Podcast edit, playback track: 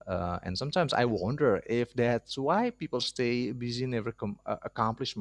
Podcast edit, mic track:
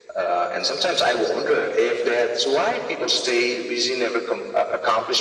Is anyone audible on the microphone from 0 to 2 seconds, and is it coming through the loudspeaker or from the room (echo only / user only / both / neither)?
echo only